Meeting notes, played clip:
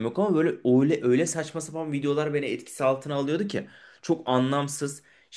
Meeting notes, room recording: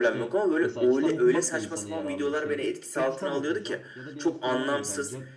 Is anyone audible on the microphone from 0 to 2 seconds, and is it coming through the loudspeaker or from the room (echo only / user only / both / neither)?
both